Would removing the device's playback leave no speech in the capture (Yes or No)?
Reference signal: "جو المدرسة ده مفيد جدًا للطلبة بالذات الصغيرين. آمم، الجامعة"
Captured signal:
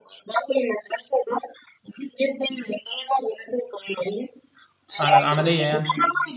No